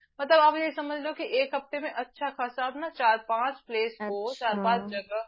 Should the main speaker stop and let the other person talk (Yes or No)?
No